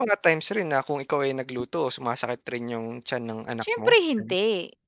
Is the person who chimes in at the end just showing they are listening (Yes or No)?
No